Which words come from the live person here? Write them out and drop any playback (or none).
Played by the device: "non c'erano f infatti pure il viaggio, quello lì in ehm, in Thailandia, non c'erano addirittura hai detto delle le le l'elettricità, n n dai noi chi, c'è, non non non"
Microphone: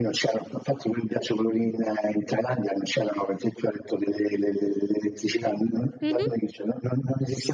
Mh-mh.